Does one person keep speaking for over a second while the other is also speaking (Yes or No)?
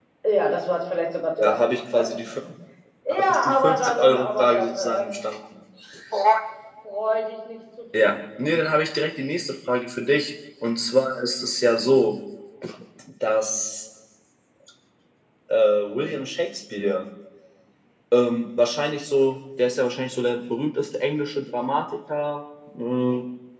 Yes